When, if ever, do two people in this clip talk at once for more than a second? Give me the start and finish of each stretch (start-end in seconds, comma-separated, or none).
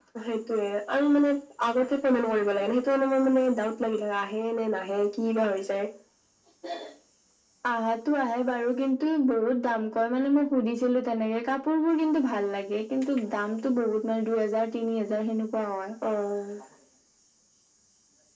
none